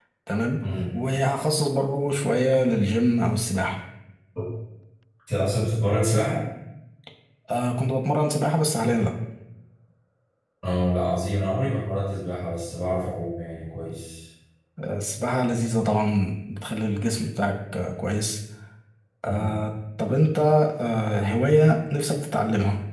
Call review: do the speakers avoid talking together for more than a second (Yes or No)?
Yes